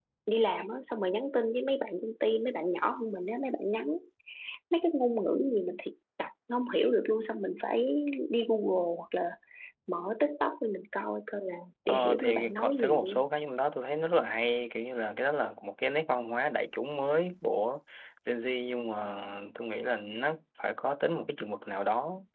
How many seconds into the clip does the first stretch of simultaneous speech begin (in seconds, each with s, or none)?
11.9 s